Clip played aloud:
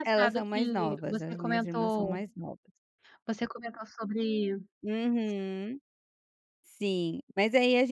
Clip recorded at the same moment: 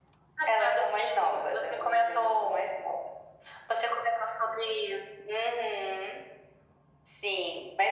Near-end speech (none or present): none